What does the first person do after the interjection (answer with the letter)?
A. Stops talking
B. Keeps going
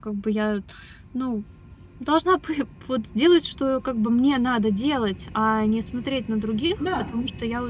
B